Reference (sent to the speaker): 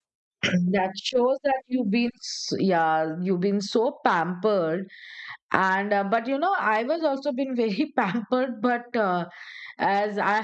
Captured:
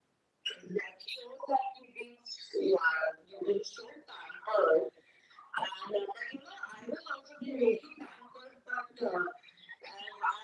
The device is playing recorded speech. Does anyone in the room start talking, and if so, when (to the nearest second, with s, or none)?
none